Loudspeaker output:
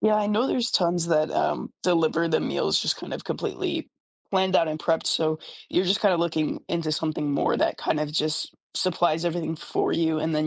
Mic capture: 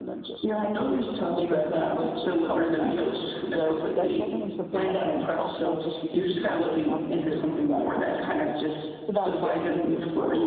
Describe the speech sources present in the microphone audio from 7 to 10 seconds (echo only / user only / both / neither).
both